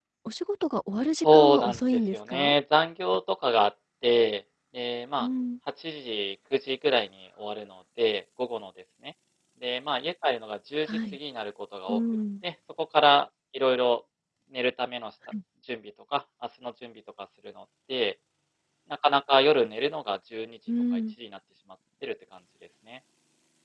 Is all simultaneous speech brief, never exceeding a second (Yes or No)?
No